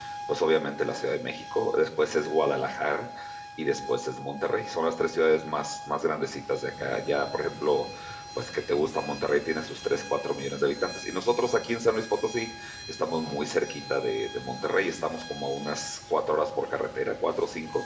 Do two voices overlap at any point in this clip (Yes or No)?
No